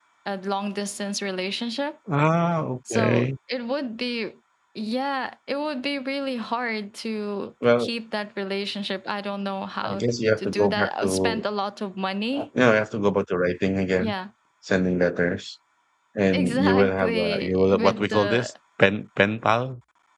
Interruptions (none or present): present